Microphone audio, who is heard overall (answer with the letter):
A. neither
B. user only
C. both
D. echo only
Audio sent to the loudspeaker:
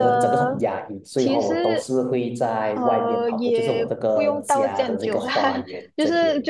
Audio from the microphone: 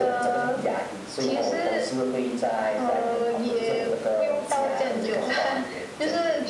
D